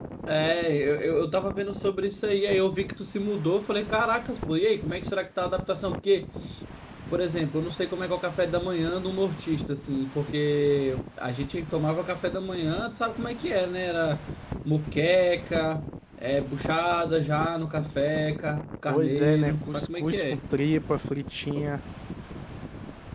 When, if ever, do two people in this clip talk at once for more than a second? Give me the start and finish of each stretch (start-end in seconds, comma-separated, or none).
18.9-20.4